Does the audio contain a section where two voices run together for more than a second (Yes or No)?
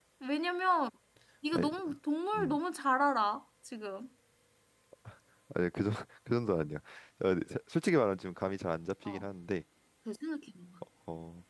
No